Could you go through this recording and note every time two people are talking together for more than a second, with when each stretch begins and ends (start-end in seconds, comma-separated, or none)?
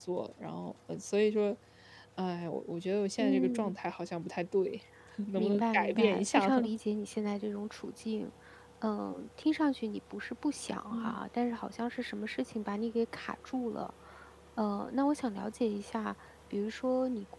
5.4-6.7